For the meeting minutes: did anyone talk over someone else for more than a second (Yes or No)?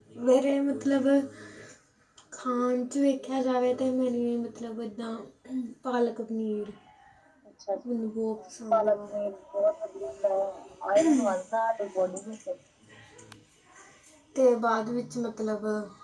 No